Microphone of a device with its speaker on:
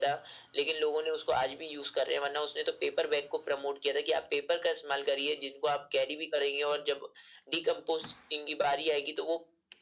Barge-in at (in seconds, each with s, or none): none